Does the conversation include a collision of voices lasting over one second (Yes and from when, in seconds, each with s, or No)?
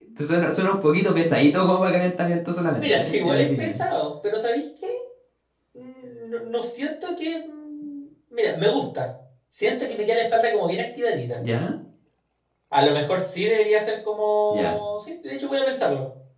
Yes, from 2.5 s